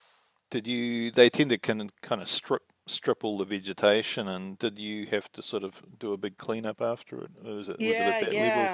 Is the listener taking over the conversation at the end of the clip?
Yes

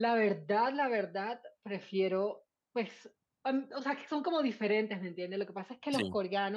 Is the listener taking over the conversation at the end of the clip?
No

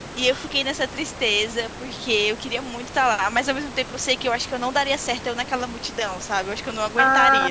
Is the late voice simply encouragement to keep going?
No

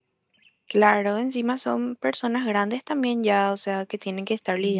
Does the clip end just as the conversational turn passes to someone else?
Yes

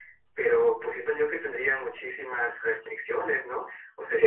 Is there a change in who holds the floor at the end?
Yes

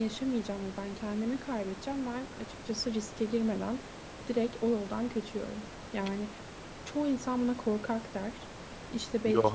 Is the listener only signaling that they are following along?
Yes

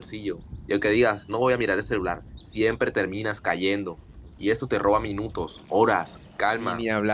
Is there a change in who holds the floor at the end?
Yes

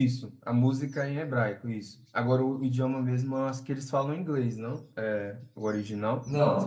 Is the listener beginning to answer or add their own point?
Yes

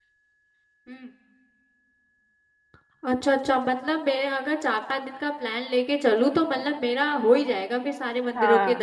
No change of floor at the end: No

